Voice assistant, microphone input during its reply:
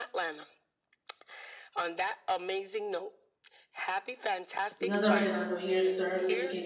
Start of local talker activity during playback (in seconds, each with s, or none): 4.8 s